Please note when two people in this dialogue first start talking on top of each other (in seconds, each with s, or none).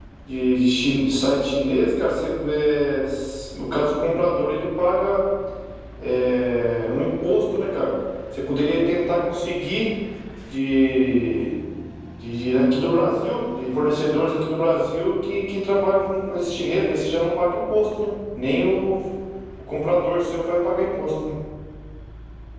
none